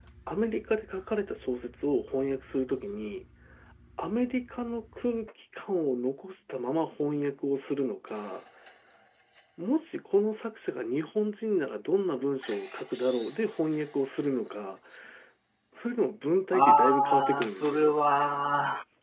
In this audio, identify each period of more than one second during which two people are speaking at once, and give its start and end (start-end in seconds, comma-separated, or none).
16.5-17.9